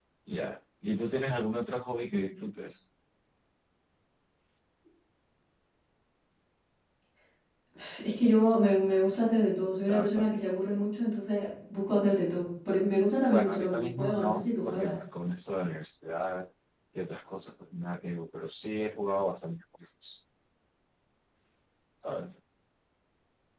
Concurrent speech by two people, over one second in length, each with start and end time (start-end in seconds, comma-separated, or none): 12.9-14.9